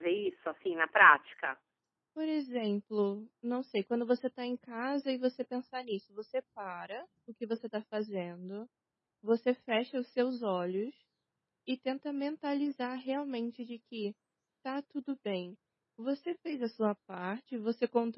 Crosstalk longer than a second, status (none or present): none